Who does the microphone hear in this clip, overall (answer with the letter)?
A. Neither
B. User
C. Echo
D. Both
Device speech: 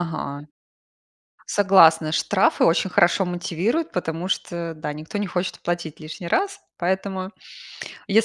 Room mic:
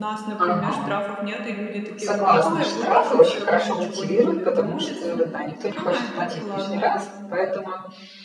D